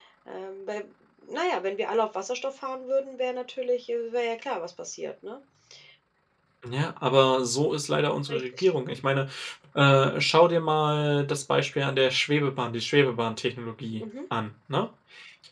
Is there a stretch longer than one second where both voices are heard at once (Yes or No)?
No